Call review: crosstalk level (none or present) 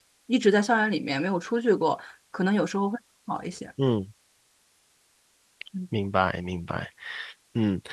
none